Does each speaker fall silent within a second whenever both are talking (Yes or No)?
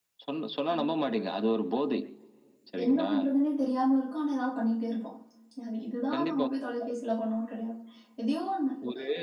Yes